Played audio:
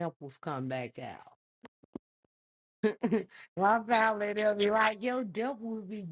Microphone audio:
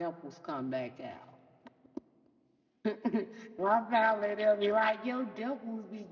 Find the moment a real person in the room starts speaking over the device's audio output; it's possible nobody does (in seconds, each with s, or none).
none